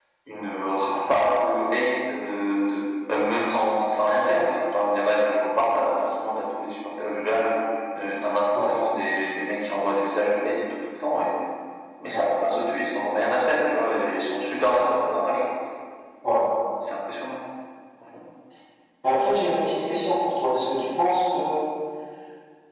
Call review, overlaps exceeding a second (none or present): none